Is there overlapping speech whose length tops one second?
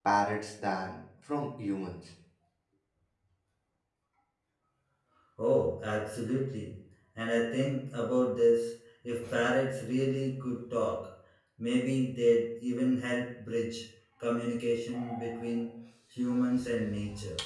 No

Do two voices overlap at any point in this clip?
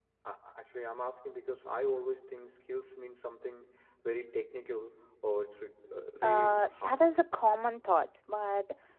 Yes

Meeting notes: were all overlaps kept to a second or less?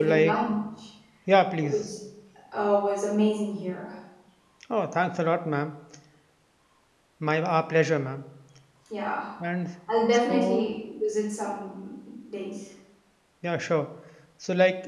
Yes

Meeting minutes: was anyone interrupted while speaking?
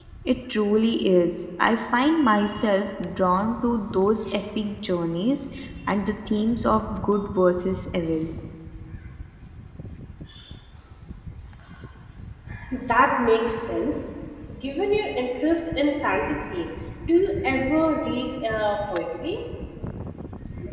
No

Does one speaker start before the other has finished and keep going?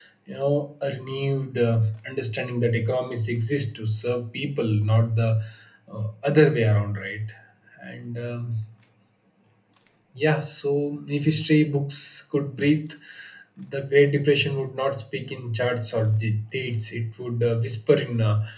No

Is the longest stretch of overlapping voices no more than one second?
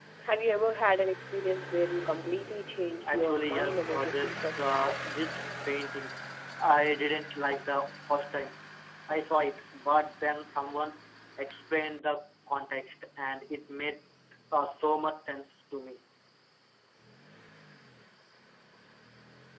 No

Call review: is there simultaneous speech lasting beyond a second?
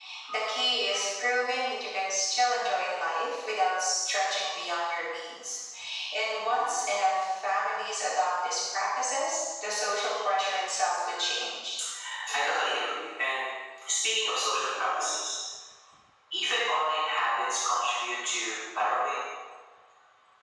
No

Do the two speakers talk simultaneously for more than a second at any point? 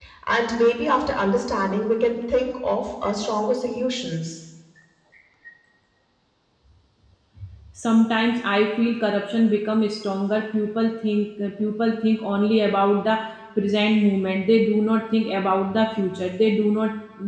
No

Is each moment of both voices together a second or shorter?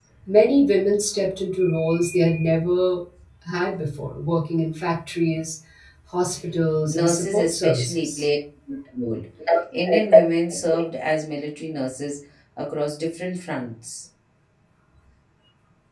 No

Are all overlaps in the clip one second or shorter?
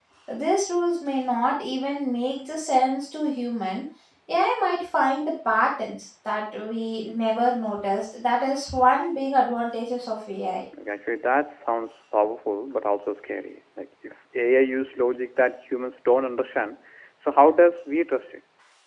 Yes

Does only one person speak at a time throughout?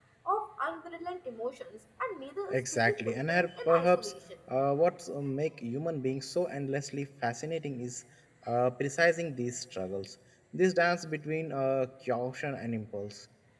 No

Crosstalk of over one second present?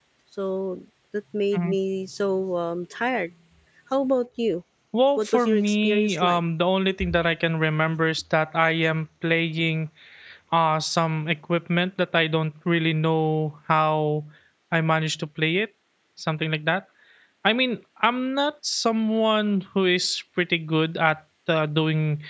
Yes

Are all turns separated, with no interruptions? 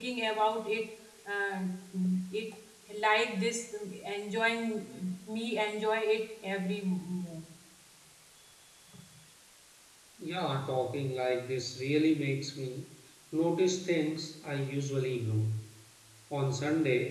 Yes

